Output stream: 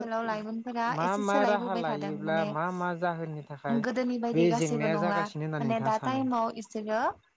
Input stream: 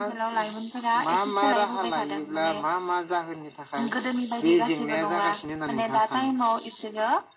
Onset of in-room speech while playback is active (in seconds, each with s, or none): none